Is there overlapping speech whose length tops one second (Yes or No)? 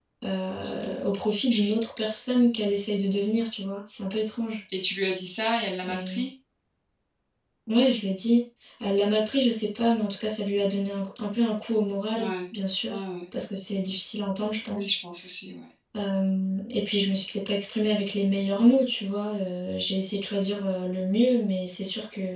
No